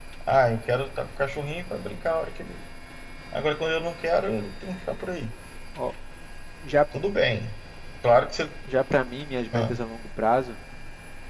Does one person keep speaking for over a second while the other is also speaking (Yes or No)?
No